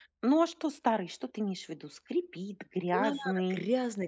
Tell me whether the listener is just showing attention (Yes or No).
No